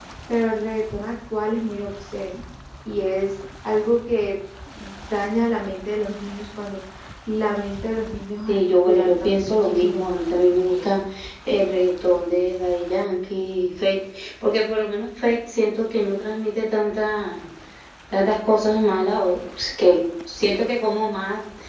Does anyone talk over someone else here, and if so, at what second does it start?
8.5 s

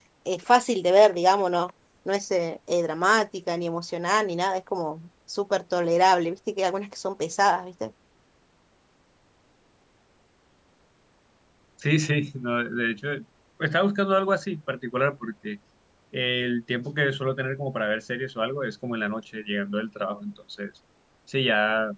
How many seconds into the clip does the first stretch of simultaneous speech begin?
none

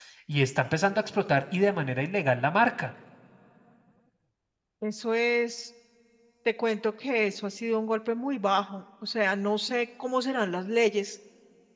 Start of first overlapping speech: none

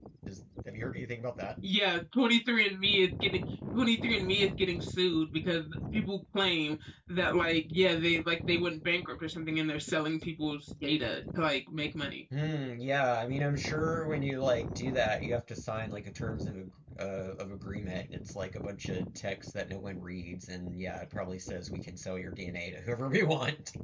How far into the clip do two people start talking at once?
none

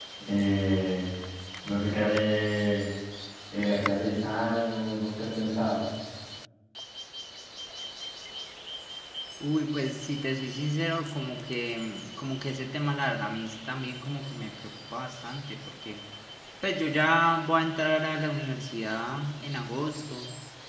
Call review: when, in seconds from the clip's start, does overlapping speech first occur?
none

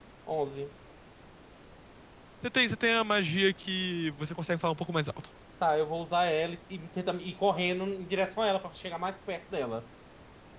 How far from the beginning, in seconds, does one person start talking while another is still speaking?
none

